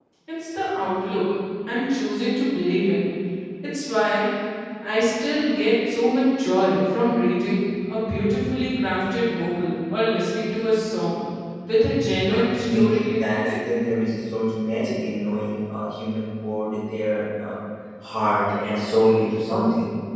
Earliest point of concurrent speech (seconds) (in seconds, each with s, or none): 12.3 s